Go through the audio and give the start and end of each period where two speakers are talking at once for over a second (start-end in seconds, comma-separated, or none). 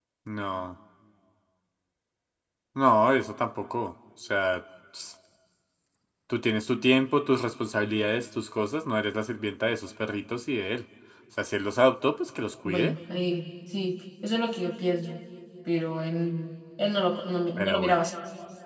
none